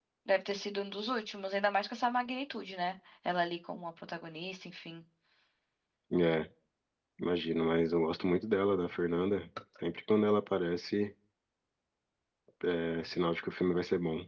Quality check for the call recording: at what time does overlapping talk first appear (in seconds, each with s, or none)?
none